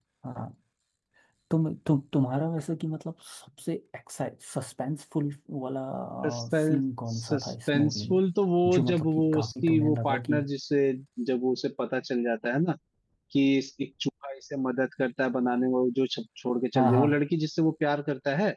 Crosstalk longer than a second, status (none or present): present